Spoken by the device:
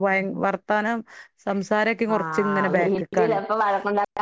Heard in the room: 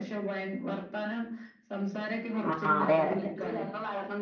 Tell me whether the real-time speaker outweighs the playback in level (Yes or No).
Yes